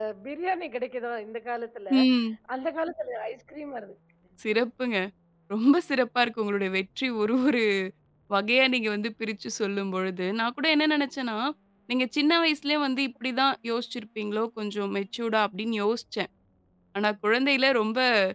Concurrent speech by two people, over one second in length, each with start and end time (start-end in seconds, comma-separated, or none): none